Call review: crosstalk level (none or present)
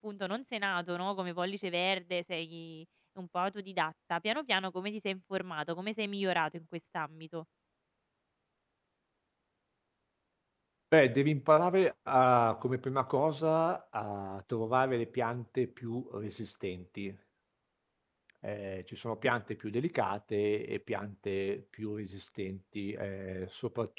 none